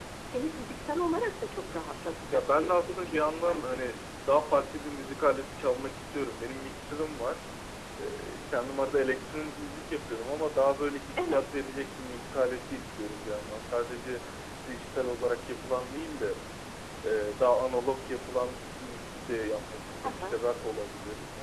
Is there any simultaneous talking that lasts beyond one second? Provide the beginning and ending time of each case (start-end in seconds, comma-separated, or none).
2.3-3.9